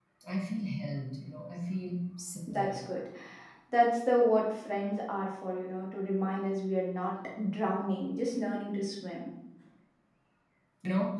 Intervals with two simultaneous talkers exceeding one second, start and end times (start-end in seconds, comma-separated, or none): none